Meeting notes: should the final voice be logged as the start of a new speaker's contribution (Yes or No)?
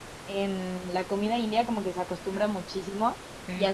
No